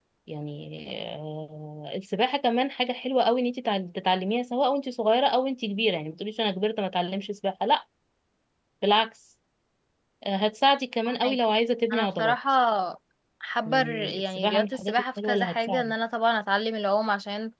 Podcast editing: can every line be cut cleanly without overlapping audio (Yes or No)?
No